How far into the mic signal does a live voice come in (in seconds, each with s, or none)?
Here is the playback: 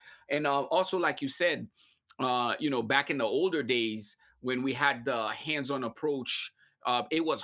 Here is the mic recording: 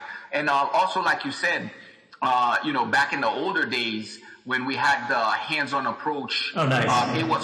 6.5 s